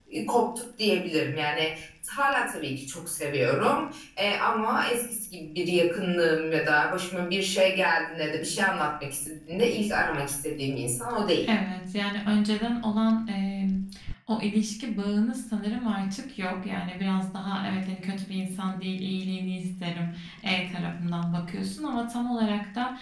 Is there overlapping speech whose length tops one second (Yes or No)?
No